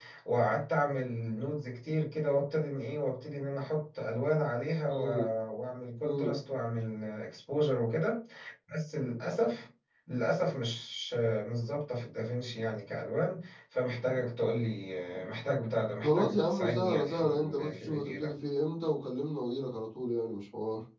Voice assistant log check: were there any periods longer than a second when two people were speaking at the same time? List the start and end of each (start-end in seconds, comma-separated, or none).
16.0-18.3